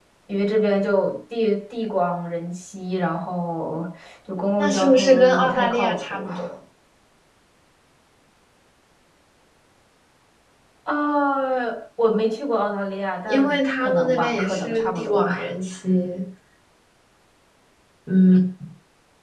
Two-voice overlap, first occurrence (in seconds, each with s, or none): 4.6 s